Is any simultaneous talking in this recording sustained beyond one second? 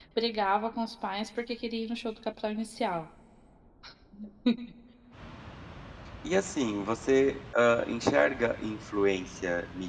No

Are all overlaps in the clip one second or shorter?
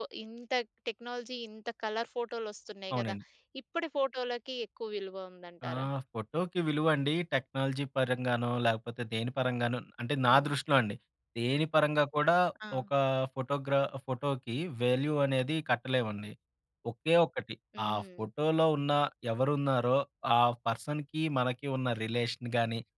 Yes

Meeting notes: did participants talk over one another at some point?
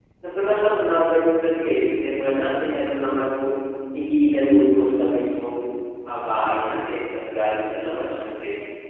No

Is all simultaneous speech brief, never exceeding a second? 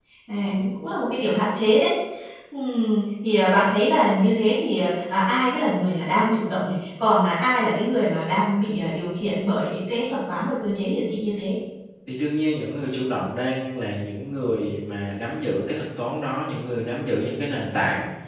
Yes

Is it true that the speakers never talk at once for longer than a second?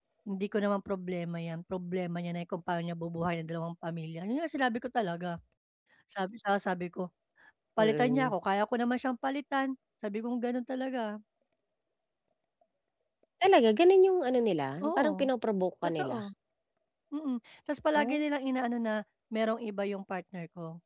Yes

